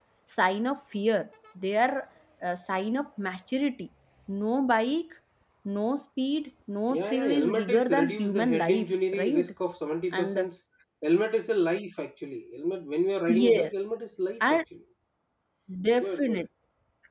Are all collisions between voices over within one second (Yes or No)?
No